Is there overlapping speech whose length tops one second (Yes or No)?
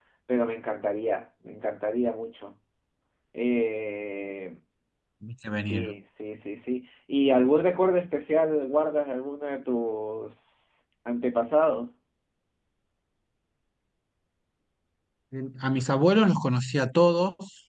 No